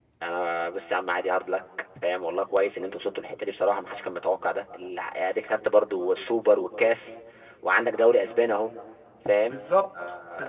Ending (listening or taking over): taking over